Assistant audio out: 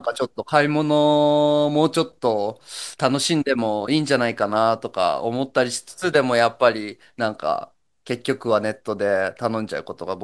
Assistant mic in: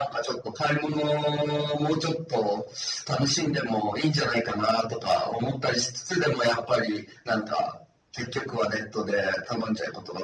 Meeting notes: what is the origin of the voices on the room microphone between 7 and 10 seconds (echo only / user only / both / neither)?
echo only